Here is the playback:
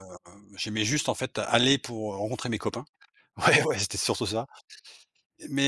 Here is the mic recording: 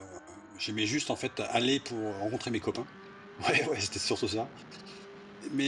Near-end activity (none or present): none